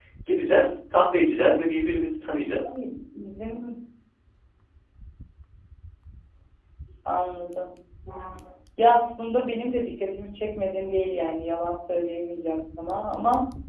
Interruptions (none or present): none